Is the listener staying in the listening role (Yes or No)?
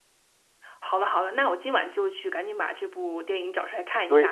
No